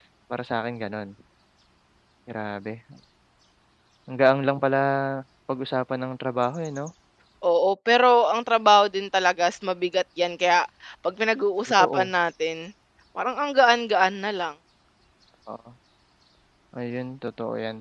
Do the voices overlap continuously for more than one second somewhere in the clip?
No

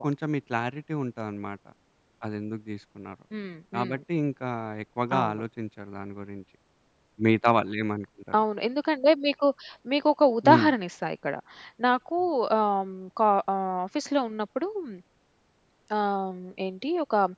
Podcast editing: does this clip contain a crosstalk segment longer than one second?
No

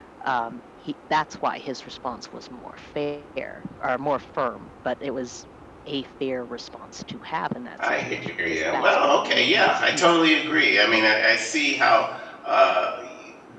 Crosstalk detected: Yes, from 7.8 s

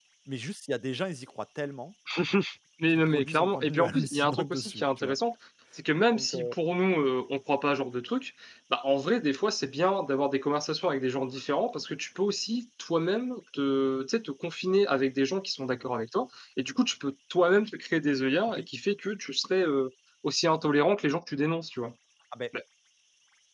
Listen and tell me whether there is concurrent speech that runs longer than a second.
Yes, from 3.0 s

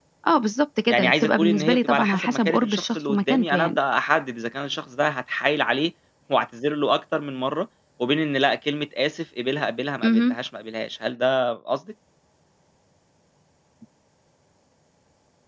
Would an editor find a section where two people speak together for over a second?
Yes, from 0.9 s

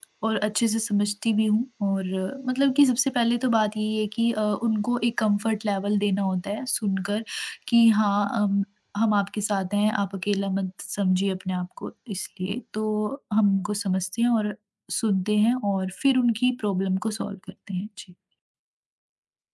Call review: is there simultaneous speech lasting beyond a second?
No

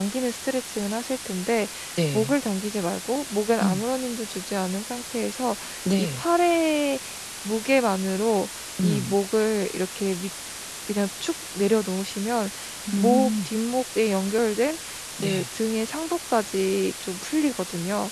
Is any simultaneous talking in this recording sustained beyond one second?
No

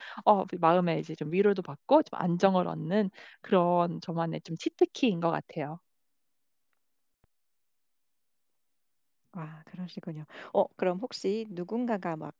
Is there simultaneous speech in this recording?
No

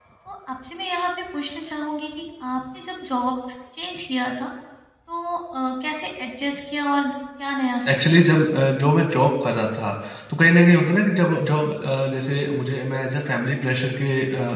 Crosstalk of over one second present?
No

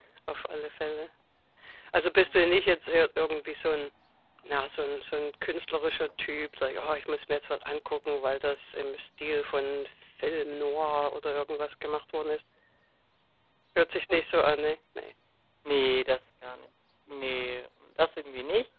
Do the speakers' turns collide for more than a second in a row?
No

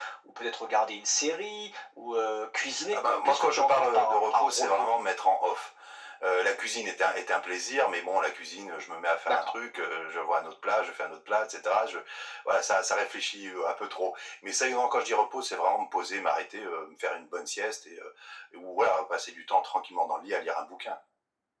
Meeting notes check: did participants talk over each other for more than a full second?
Yes, from 2.7 s

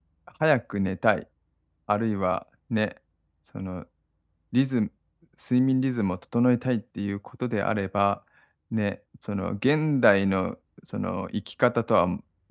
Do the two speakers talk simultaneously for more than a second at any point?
No

